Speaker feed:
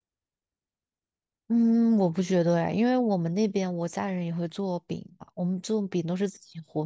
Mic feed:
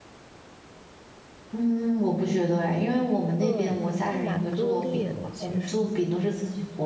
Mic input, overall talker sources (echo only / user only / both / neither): both